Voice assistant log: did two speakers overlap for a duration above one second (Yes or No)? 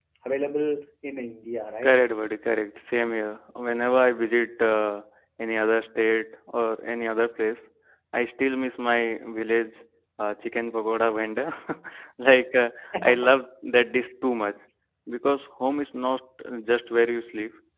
No